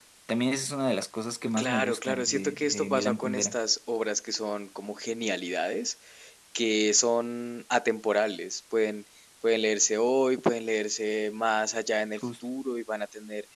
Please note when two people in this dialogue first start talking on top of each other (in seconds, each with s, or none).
1.6 s